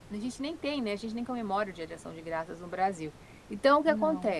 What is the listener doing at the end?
listening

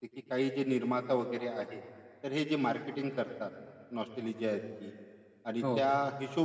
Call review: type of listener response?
listening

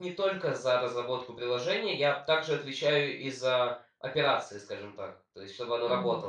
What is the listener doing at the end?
listening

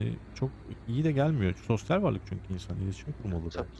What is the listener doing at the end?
taking over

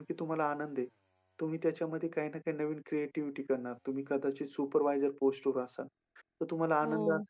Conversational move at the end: listening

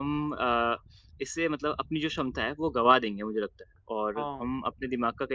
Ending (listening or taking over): listening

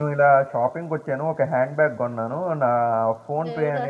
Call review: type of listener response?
listening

